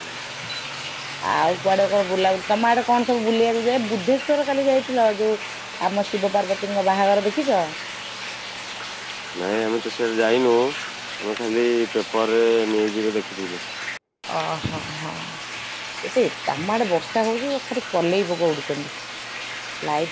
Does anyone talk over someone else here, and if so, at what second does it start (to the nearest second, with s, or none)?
none